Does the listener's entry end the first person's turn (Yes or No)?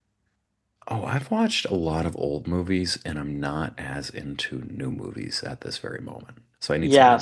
Yes